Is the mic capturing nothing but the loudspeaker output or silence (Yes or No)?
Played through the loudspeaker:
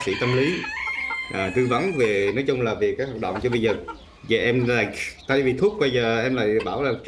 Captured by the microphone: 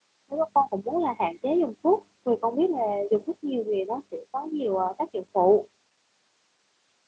No